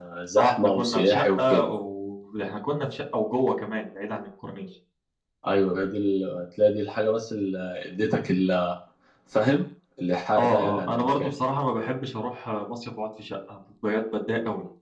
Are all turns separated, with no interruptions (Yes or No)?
No